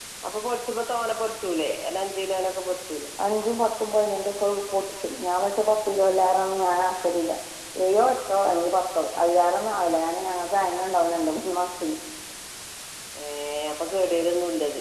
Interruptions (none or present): none